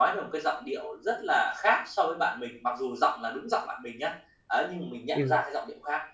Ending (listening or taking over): listening